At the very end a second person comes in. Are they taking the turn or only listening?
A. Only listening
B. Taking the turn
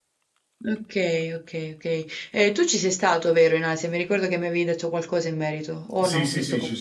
B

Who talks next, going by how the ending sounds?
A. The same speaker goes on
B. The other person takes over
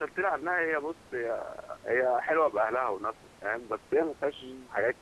A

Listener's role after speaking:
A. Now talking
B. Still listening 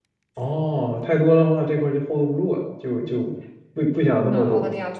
A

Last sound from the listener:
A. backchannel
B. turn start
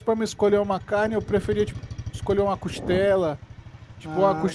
A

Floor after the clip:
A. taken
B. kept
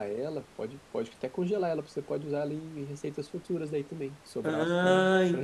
A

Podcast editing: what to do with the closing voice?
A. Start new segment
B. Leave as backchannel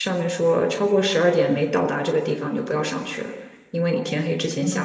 A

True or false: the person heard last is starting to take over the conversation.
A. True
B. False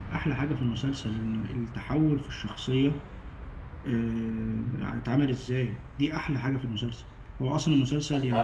B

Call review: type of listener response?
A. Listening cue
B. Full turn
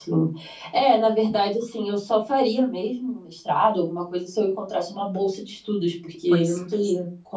A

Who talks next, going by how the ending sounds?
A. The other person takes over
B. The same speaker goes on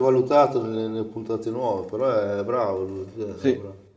A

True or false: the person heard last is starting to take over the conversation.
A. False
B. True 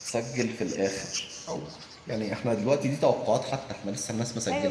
B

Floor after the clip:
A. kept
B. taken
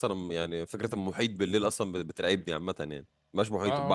B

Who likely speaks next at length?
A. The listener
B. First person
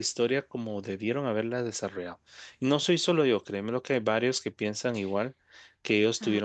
A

